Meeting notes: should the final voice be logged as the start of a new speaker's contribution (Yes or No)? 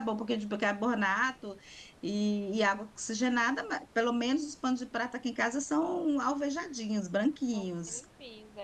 Yes